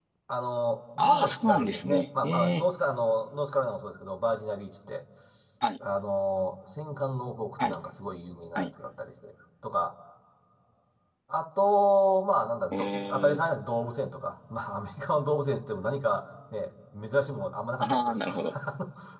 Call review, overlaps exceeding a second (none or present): present